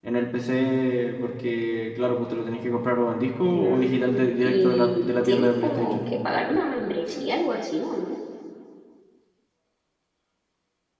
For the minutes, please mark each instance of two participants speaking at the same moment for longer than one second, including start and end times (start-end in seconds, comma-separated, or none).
3.5-6.0